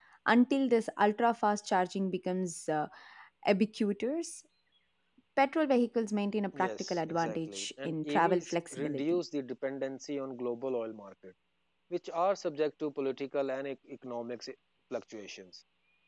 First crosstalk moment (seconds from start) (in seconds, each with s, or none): 6.5 s